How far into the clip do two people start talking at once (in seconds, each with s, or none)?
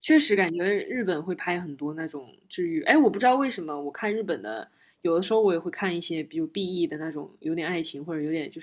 none